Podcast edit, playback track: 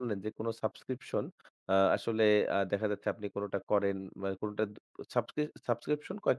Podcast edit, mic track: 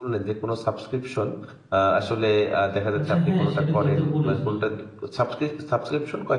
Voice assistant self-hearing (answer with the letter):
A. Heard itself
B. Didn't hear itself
A